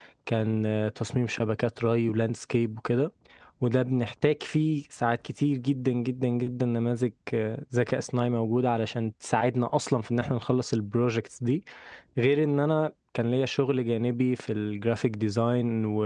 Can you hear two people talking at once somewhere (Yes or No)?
No